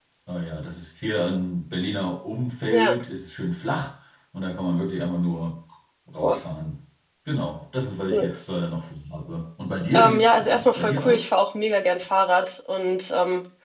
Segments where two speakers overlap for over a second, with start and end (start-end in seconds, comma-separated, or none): 9.9-11.2